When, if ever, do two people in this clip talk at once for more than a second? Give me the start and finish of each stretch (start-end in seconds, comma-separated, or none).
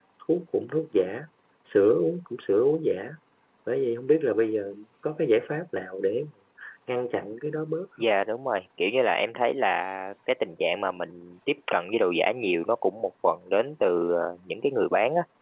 none